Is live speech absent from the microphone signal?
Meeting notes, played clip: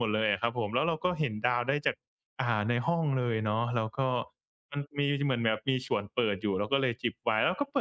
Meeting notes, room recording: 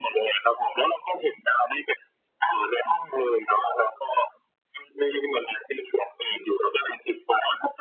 Yes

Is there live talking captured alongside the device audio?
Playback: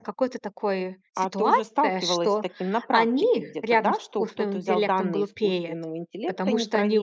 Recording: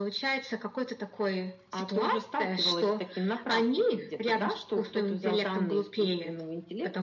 No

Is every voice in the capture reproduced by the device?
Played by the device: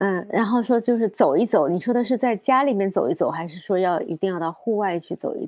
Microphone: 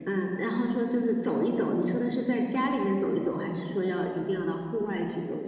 Yes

